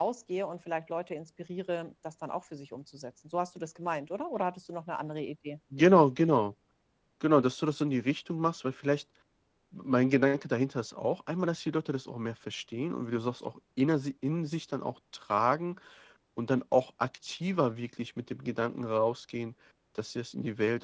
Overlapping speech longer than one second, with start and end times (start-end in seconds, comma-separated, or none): none